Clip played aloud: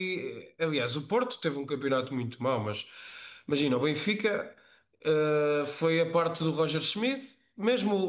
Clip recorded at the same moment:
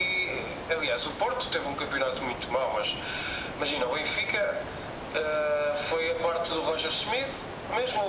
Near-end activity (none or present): none